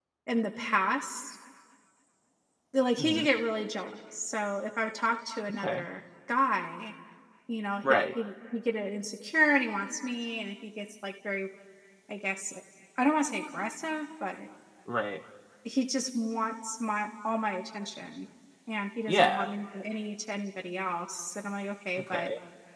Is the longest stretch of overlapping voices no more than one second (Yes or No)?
Yes